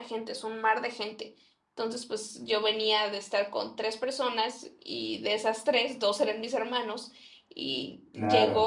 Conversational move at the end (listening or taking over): taking over